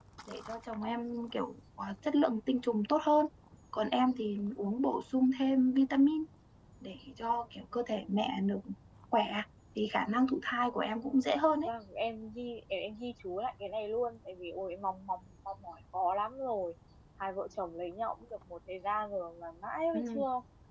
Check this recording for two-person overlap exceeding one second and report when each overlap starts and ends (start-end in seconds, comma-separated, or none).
none